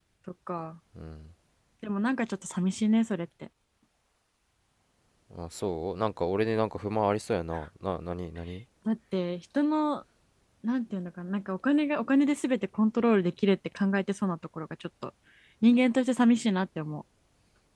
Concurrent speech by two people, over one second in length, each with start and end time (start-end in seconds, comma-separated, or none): none